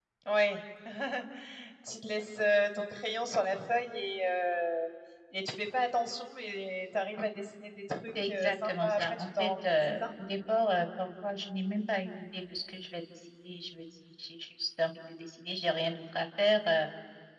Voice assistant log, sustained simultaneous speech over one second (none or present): present